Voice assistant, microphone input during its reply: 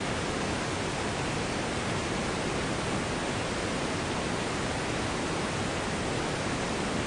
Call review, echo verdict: none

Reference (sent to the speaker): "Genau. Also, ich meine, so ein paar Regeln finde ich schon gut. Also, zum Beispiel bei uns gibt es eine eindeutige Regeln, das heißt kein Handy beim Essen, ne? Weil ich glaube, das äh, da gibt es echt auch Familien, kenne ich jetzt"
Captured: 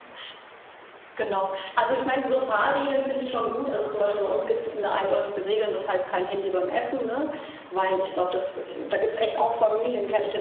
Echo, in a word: present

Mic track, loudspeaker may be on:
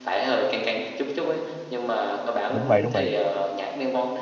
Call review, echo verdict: present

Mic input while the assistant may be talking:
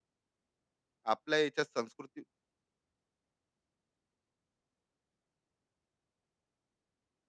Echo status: none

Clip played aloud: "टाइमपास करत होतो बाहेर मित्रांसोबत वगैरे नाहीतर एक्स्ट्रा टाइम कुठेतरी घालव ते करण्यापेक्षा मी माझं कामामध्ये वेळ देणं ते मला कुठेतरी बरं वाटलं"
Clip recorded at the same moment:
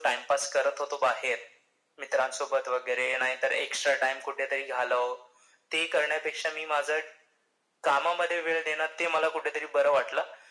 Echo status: present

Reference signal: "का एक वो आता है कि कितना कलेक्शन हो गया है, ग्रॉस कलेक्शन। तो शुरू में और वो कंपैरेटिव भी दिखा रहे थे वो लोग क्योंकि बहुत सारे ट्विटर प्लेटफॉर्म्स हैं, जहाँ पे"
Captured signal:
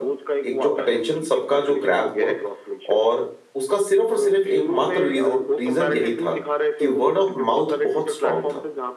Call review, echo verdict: present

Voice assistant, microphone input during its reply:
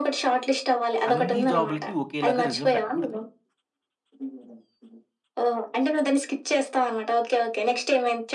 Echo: present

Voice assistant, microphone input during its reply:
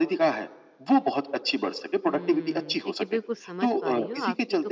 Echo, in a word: present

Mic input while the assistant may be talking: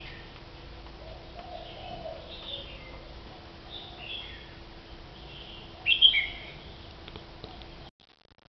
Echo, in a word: none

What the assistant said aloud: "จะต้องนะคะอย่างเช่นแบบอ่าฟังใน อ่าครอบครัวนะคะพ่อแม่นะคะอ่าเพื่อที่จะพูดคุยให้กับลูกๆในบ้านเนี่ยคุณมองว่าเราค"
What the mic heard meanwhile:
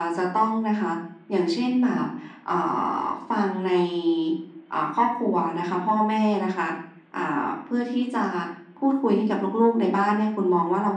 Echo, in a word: present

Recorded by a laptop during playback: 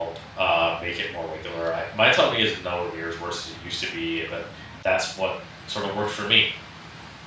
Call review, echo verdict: none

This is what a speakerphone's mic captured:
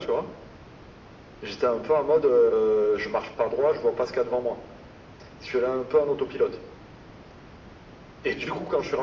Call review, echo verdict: present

